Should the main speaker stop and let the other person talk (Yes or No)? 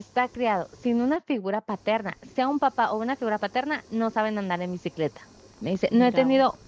No